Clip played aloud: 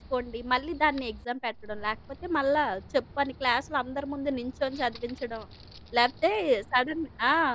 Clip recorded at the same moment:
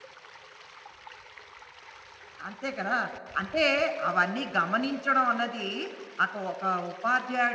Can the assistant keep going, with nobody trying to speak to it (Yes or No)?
No